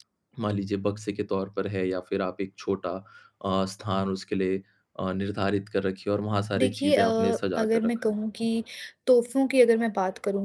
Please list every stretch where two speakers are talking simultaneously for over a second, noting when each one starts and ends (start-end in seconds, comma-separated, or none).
6.6-8.1